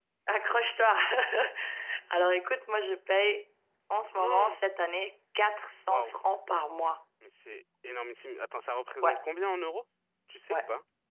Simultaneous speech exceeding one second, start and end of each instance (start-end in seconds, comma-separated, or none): none